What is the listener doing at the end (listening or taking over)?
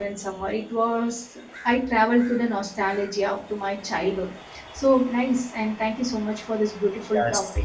taking over